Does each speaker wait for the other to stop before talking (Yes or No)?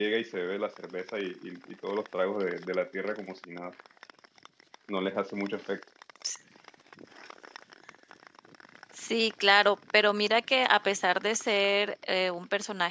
Yes